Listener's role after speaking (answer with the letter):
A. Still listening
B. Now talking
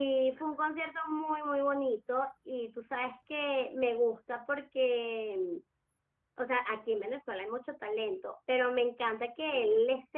A